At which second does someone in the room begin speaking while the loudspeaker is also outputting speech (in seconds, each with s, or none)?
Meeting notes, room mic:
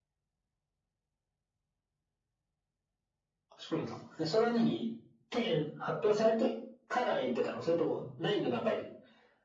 none